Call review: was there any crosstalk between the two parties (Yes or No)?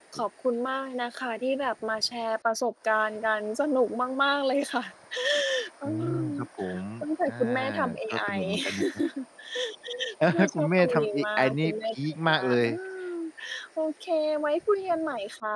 Yes